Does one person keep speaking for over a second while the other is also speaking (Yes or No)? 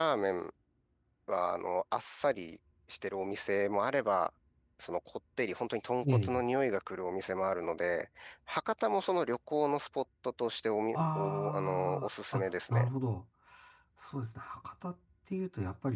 Yes